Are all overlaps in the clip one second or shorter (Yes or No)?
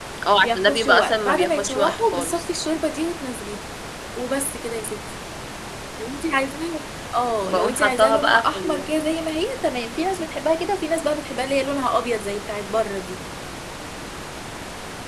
No